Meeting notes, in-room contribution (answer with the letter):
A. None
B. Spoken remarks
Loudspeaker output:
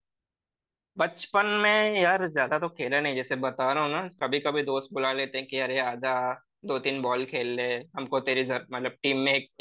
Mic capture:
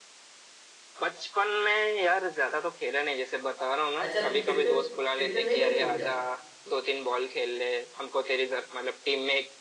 B